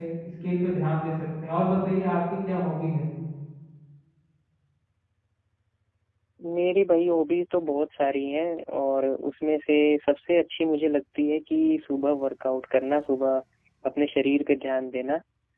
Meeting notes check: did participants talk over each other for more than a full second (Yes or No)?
No